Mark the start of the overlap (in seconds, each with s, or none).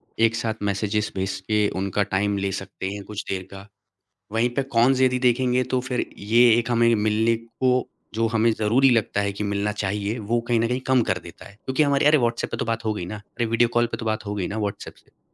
none